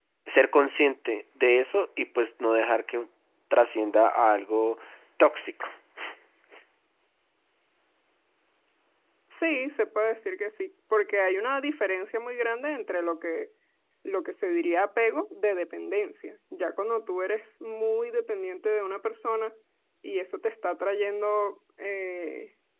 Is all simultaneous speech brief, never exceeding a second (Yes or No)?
Yes